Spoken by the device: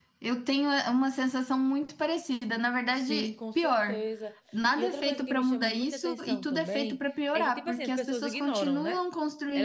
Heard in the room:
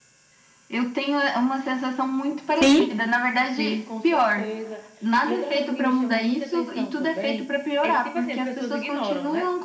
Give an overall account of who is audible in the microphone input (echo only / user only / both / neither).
both